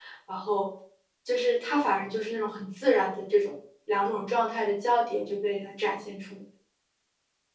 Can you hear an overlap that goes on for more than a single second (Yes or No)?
No